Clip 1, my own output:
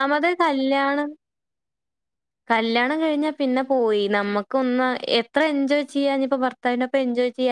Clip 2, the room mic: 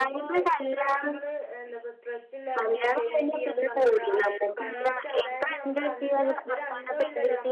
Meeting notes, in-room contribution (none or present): present